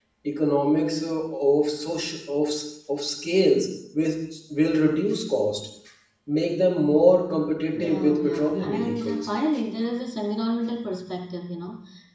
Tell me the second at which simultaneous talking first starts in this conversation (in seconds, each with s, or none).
7.7 s